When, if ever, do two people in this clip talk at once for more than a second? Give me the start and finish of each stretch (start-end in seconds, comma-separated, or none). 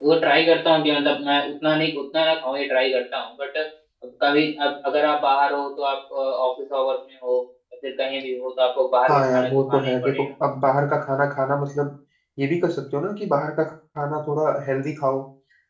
9.1-10.3